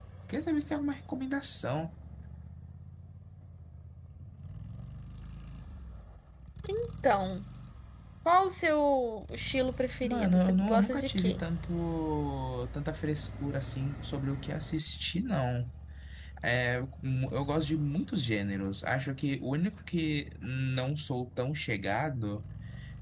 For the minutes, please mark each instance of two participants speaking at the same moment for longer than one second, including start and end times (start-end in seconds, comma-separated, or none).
10.0-11.4